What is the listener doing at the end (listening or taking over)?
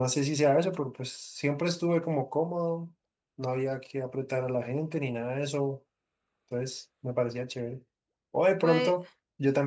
listening